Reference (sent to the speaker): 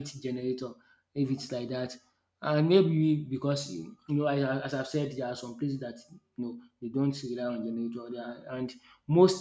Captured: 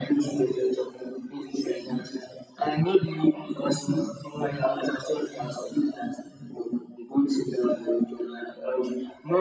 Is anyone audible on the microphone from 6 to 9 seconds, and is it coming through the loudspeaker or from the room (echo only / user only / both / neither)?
echo only